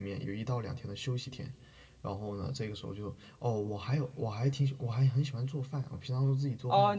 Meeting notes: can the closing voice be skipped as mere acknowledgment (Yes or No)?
No